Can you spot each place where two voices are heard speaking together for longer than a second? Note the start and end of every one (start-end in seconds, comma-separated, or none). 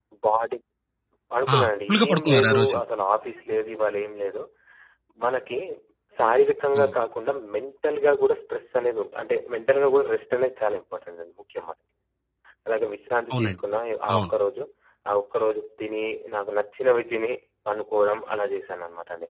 1.6-2.8